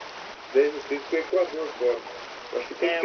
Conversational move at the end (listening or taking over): taking over